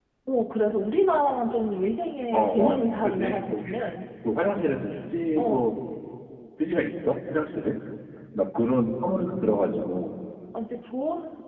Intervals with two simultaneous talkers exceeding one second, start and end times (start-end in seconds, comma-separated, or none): 2.3-3.7